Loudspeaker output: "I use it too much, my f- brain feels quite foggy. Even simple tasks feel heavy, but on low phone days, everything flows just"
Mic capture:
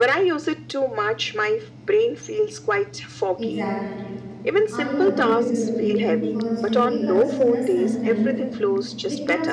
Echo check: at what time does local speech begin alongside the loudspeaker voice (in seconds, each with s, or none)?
3.4 s